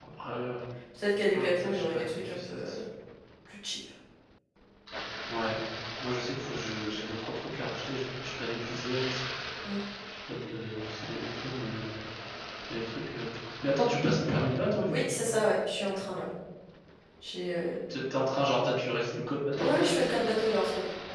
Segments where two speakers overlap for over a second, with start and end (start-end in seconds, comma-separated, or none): 1.3-2.7